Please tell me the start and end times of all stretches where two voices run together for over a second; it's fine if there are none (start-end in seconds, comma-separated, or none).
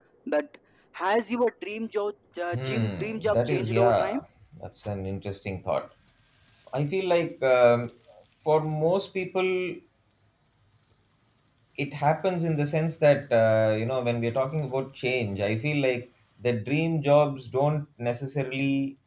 2.5-4.2